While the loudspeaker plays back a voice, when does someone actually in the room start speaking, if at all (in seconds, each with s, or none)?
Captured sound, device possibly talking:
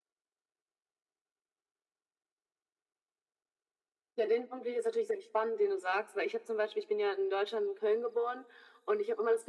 none